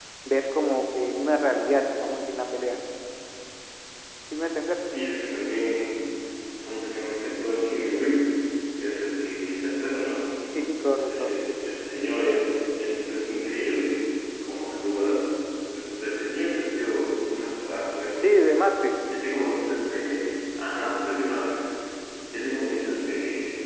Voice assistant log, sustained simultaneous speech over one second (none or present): none